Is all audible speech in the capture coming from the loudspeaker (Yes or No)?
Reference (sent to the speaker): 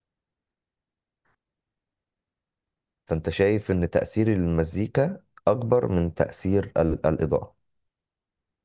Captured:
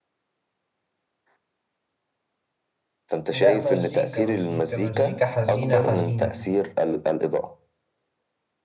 No